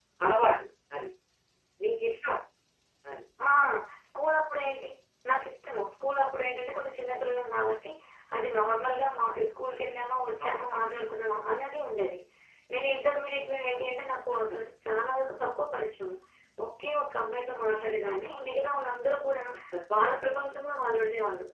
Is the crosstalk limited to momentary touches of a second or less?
Yes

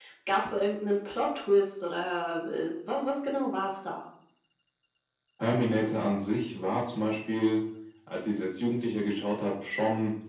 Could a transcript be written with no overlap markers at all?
Yes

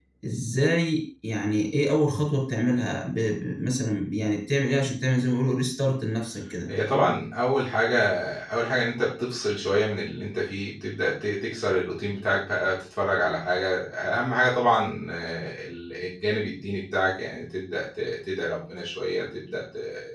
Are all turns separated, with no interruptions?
Yes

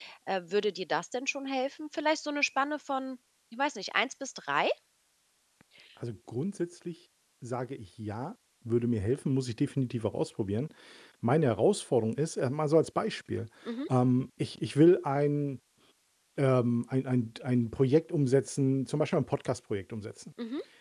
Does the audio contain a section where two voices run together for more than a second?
No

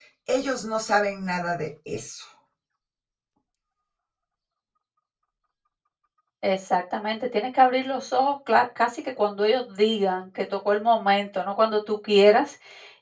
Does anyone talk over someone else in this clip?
No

